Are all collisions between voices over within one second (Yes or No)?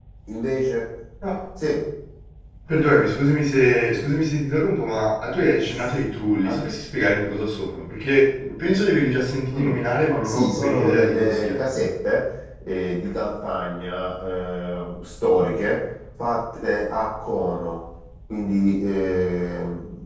No